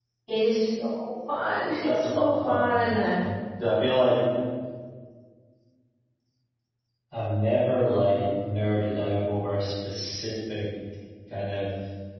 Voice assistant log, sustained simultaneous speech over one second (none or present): present